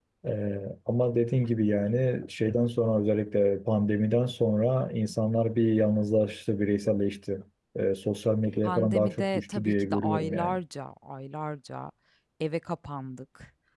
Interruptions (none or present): present